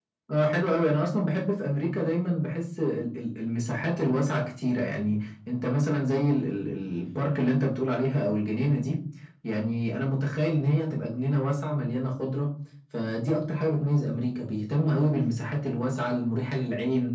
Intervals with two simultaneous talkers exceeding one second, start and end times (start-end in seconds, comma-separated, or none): none